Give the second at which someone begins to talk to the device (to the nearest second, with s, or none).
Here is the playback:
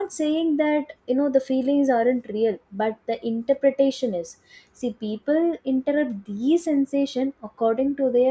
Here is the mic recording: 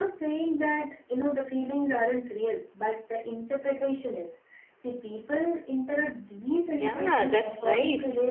7 s